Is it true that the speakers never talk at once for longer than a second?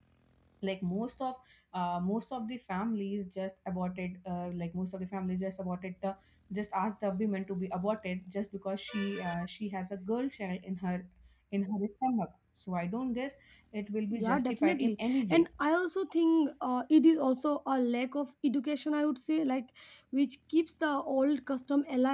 No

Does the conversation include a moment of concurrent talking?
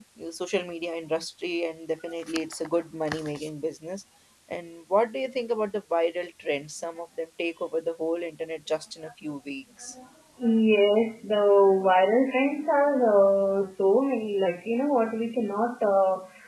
No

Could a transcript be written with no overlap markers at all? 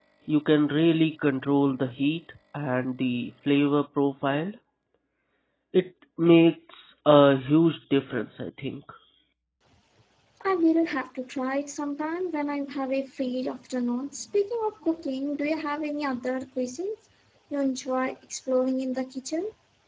Yes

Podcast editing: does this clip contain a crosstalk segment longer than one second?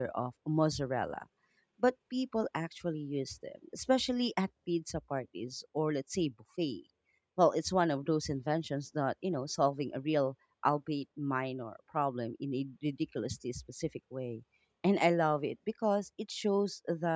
No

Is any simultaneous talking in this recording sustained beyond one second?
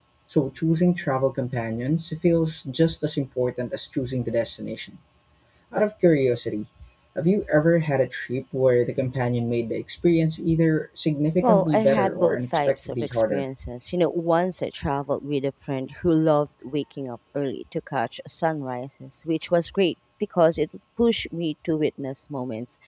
Yes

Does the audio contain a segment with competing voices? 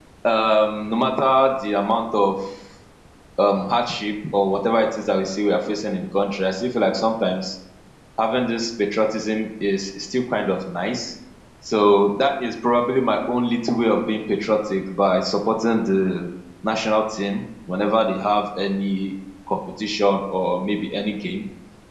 No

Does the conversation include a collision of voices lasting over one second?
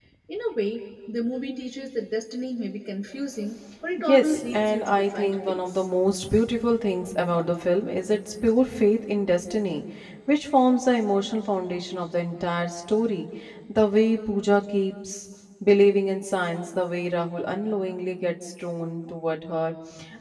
Yes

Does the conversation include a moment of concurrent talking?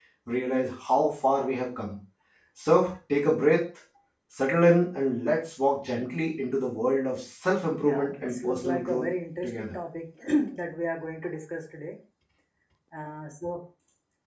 Yes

